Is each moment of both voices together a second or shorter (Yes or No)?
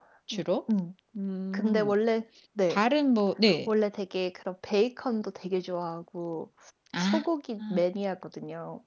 Yes